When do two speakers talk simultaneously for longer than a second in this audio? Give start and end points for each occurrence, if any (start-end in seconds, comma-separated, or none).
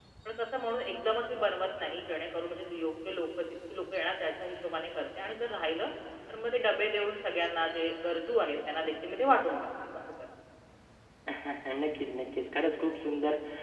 none